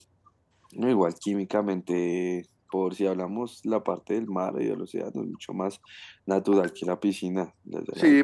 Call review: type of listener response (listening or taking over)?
taking over